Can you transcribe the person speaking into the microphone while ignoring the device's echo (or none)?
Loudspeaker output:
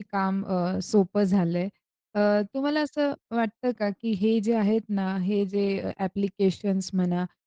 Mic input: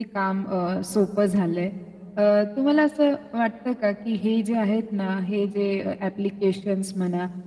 none